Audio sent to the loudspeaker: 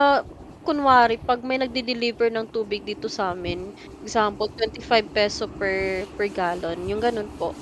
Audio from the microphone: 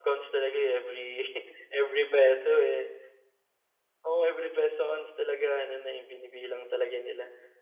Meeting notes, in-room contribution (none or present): present